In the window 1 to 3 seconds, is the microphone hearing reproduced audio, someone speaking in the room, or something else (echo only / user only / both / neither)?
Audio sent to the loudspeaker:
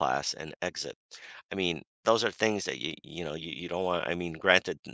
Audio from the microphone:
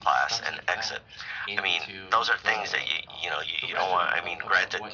both